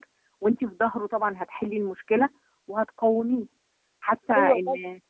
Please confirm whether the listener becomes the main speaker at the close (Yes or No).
No